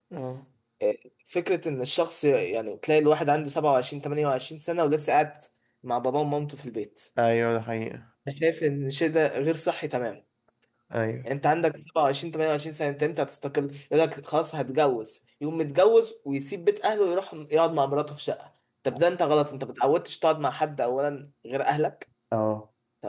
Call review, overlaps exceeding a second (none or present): none